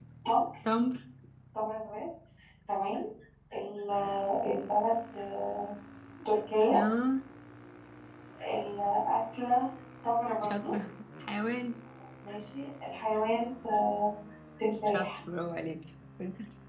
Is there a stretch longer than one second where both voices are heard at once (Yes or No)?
No